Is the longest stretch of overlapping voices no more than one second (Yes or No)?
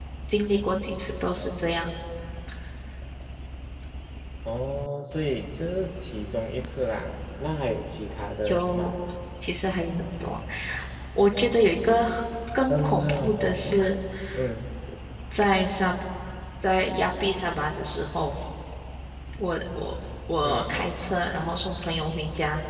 No